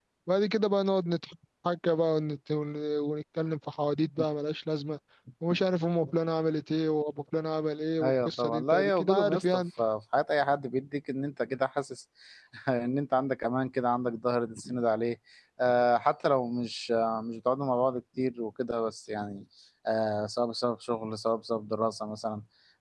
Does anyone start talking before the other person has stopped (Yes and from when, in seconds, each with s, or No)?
Yes, from 8.0 s